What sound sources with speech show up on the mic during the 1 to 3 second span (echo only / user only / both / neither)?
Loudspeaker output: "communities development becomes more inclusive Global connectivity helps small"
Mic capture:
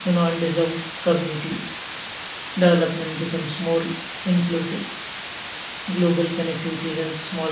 echo only